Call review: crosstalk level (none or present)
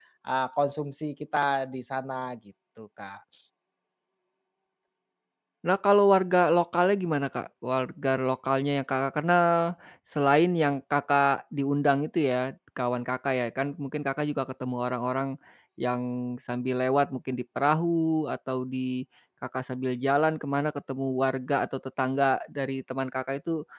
none